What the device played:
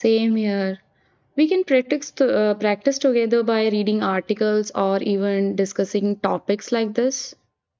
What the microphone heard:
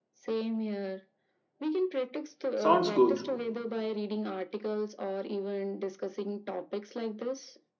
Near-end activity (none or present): present